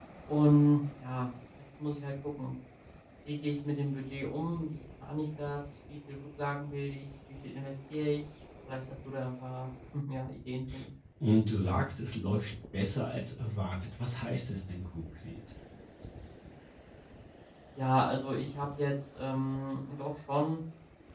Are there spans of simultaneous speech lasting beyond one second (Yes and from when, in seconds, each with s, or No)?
No